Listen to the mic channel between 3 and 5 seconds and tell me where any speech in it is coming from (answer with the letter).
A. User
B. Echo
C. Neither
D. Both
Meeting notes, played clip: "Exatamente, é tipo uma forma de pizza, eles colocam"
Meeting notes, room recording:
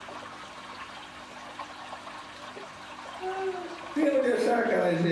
A